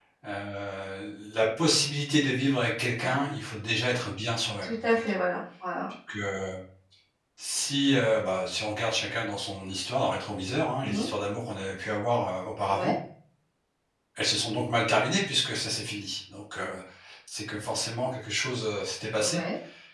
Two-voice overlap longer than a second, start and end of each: none

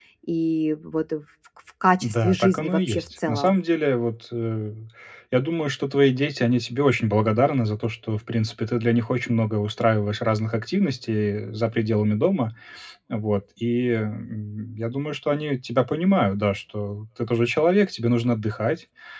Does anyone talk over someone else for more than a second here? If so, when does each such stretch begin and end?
2.0-3.5

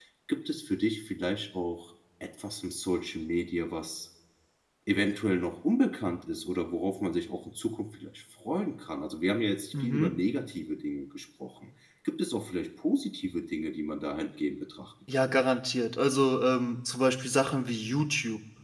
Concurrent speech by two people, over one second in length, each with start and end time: none

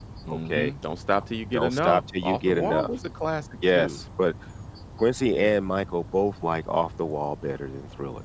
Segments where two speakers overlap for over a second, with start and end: 1.5-2.9

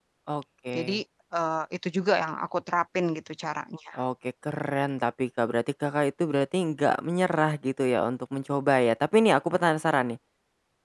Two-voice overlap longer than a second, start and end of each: none

